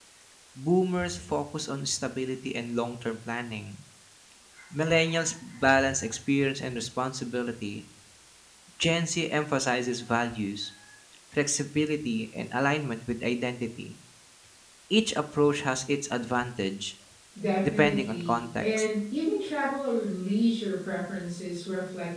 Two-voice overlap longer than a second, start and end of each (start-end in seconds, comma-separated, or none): 17.6-18.9